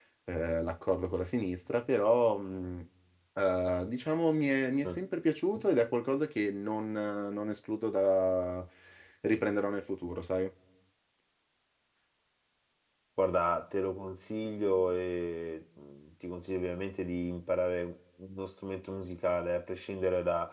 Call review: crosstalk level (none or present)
none